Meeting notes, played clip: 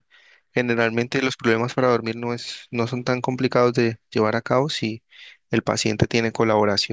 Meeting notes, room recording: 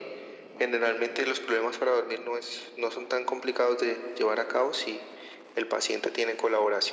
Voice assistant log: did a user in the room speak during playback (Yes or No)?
No